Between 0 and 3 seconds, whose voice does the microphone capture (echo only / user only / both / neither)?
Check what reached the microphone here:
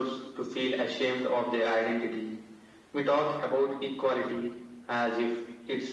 echo only